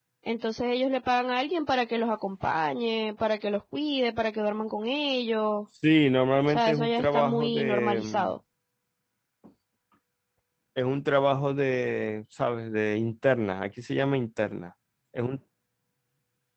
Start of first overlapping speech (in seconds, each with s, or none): 6.5 s